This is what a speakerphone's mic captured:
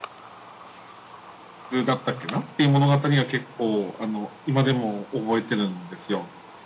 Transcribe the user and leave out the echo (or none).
none